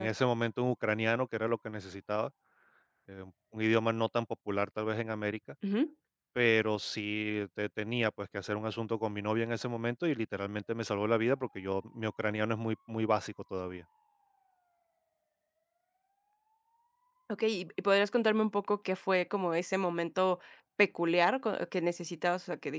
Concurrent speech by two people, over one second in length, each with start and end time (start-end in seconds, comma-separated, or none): none